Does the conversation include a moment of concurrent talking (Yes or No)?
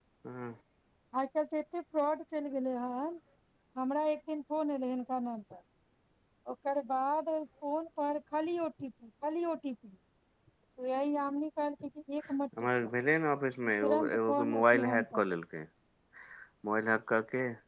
Yes